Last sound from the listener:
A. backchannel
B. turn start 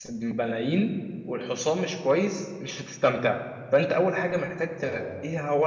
A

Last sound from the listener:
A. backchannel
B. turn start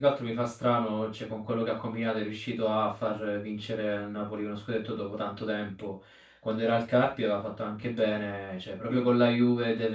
A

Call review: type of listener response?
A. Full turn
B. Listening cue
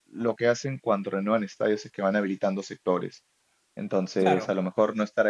B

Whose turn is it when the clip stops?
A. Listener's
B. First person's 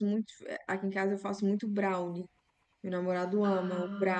B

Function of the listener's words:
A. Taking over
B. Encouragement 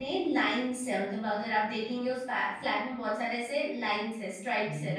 B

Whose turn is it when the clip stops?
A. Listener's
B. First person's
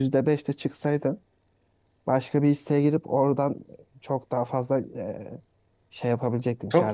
A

